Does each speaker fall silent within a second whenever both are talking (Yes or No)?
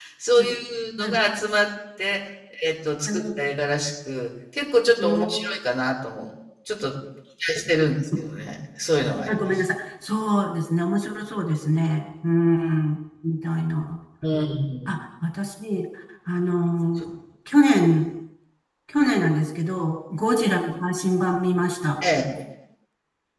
Yes